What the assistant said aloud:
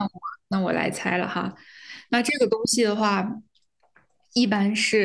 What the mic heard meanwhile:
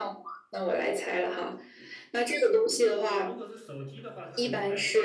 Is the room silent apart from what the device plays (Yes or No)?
No